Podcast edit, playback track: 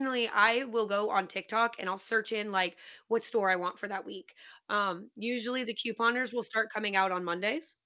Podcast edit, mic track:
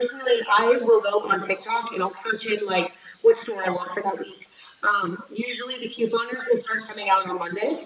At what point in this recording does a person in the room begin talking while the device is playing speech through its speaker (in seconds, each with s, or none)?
none